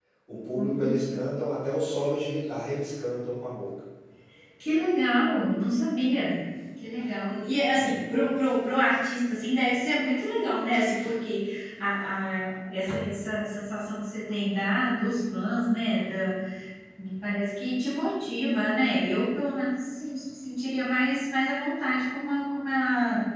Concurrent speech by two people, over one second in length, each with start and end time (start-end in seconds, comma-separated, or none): none